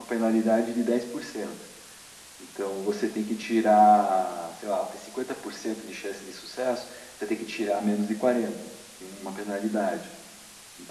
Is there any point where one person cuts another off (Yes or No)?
No